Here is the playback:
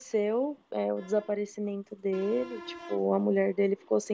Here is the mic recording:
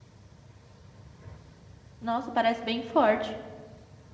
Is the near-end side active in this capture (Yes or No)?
Yes